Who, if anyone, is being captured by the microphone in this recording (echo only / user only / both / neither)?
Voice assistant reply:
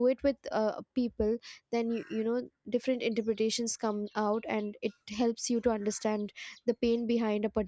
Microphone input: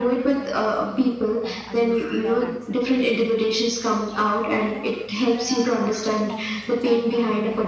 both